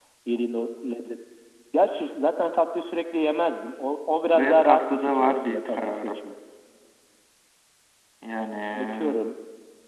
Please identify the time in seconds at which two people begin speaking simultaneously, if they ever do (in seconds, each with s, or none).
4.3 s